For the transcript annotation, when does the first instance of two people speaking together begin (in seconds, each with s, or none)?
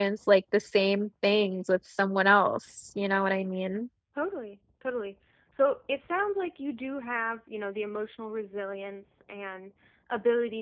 none